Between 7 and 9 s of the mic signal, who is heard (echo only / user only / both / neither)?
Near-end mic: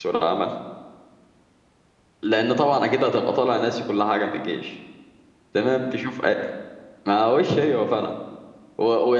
user only